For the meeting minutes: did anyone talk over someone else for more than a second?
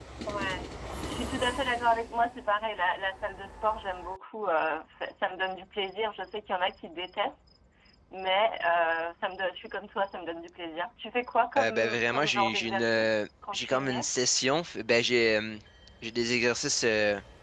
Yes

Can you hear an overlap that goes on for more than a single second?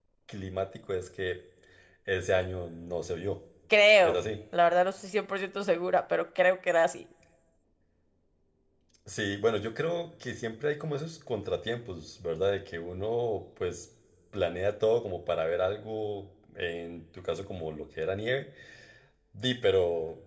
No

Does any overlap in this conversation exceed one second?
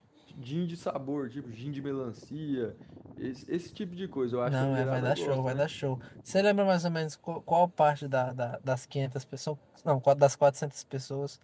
Yes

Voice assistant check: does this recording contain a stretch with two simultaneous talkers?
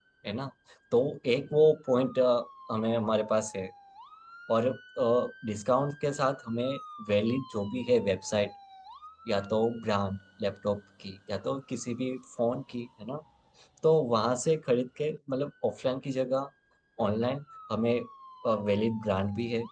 No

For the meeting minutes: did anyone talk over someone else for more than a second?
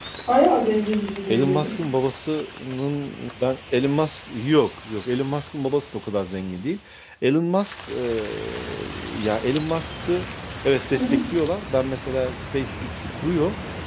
No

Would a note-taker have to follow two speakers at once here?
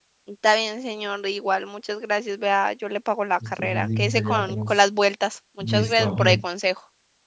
Yes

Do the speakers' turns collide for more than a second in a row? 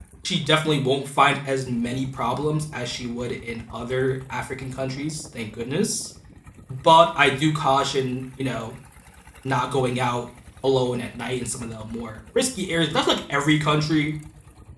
No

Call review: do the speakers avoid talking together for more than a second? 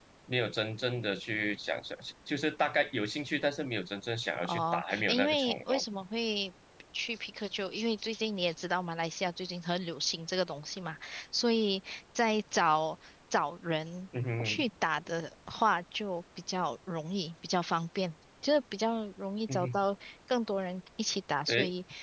No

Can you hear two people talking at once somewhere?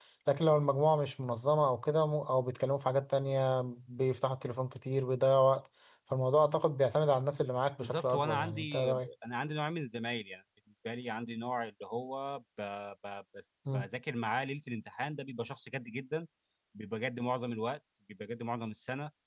Yes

